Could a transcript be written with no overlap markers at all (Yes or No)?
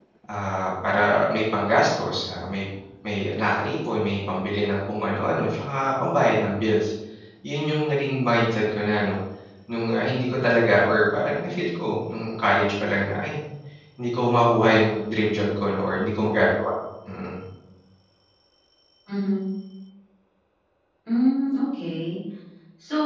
Yes